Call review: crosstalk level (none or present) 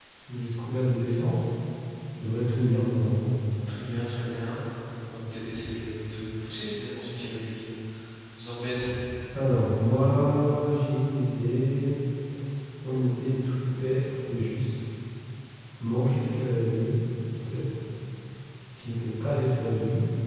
none